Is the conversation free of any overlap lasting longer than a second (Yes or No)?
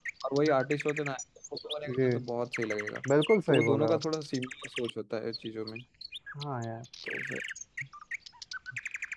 Yes